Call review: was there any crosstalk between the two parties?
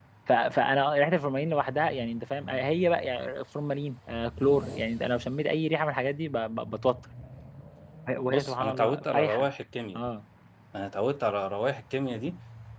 Yes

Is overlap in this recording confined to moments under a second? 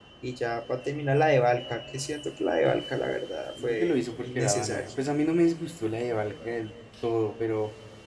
No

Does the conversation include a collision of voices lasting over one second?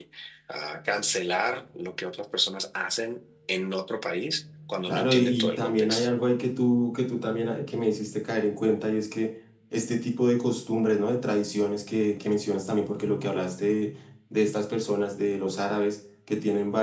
Yes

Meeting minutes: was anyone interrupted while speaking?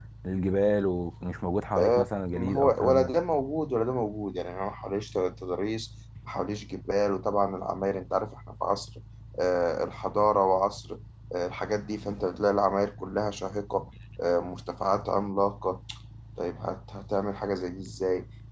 Yes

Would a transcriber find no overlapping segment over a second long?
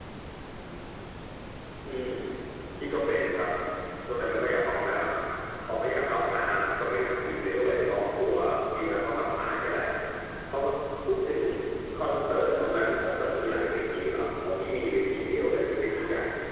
Yes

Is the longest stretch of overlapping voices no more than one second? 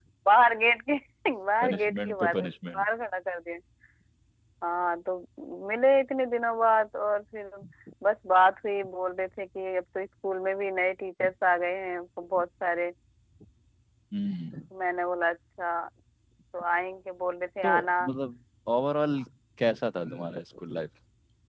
No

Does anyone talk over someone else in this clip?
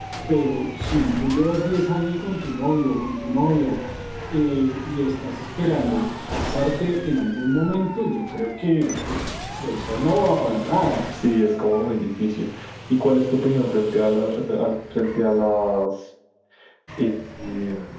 No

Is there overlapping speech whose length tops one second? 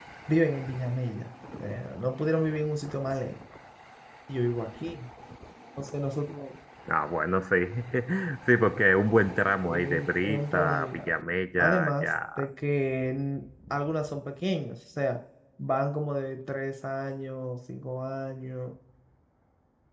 Yes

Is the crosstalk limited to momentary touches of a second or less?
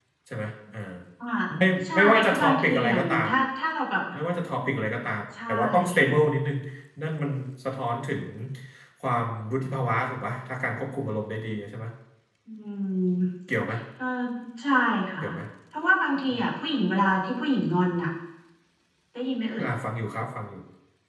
No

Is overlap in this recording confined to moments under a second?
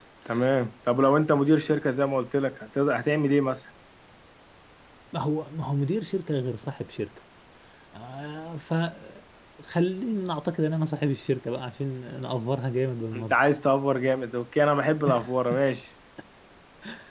Yes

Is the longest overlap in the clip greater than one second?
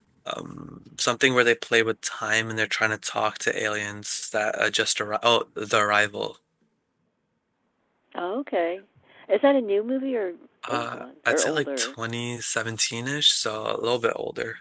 Yes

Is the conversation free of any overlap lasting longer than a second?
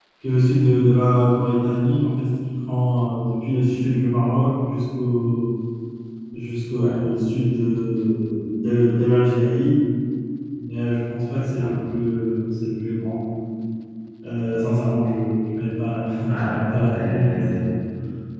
No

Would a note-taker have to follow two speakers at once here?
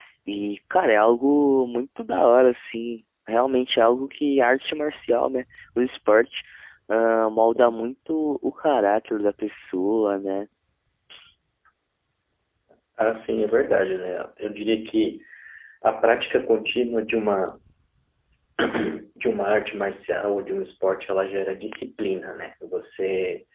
No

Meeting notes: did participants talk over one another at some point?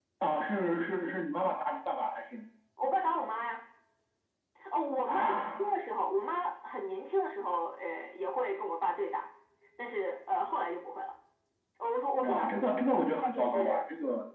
Yes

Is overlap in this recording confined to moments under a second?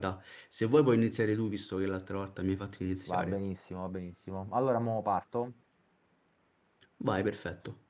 Yes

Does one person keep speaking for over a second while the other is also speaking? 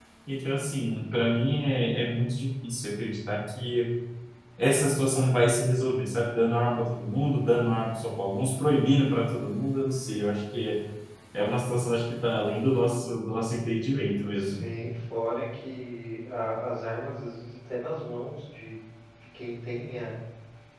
No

